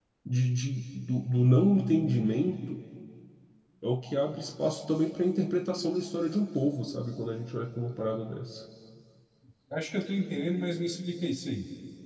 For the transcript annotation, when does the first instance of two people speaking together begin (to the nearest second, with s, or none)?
none